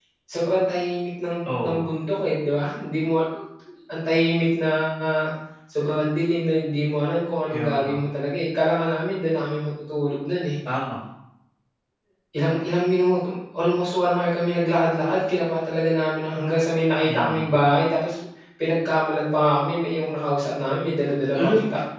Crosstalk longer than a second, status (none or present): none